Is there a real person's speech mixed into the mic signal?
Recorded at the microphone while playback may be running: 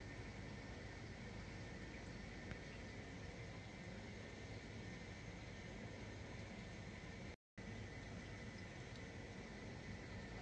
No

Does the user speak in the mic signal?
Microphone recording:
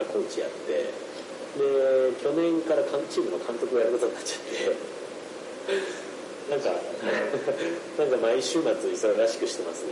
No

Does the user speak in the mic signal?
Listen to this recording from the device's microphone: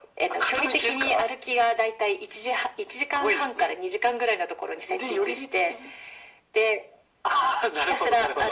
No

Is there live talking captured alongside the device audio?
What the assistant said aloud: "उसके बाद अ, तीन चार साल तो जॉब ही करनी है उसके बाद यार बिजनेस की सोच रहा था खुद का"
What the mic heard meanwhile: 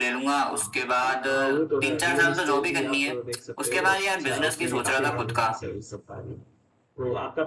Yes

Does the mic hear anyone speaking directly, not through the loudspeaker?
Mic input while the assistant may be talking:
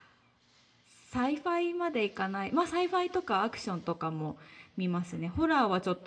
Yes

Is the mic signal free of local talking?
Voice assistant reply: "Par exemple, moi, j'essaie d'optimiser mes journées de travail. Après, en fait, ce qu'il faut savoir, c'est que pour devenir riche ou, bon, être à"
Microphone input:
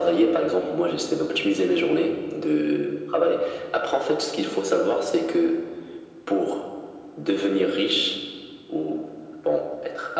Yes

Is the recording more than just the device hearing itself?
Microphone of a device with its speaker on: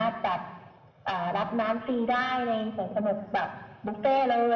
No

